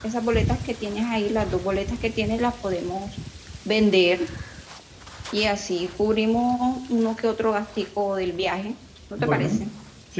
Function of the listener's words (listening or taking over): taking over